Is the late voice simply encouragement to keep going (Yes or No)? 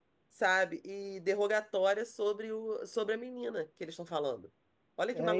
No